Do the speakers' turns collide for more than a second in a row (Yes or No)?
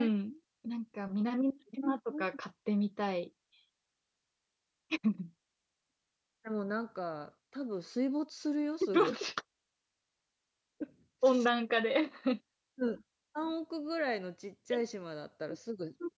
No